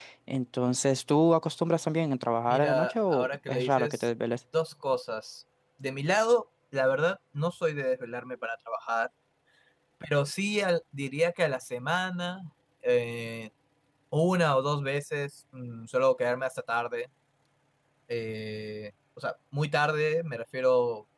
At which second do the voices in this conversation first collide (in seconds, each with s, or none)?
2.5 s